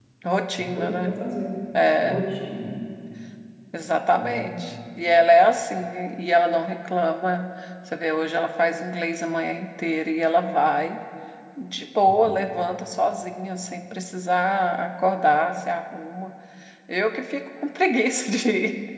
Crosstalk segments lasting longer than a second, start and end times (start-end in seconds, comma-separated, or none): none